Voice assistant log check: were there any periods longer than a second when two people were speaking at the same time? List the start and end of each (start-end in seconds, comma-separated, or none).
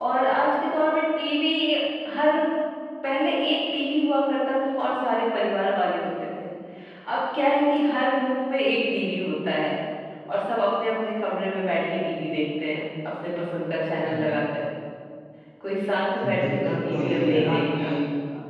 16.4-17.8